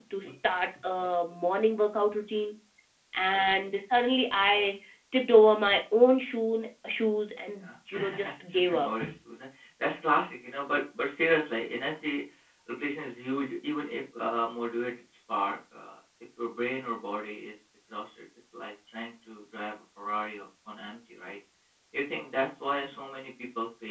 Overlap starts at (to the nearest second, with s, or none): 8 s